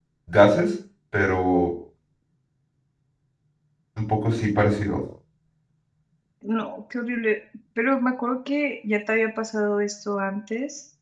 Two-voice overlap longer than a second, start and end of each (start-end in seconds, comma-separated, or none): none